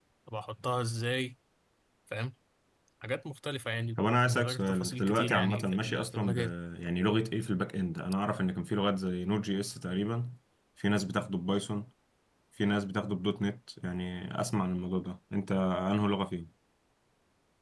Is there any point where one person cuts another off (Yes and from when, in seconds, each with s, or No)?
Yes, from 4.3 s